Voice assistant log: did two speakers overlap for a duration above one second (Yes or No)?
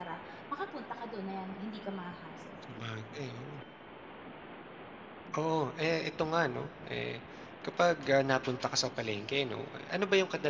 No